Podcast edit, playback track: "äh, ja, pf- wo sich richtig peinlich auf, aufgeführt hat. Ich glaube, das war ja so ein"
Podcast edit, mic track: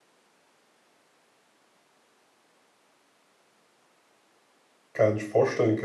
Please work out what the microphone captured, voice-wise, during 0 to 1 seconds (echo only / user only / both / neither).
neither